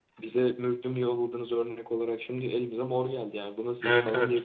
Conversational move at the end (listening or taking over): taking over